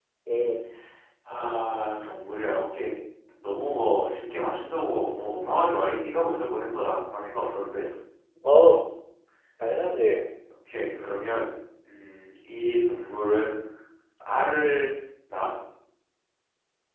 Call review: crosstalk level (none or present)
none